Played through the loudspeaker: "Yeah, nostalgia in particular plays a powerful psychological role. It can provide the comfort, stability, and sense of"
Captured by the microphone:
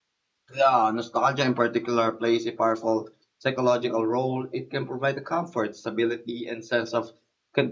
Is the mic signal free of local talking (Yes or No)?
Yes